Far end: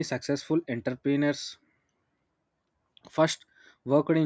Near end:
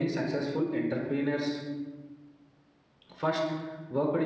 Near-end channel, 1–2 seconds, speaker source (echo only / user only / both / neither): echo only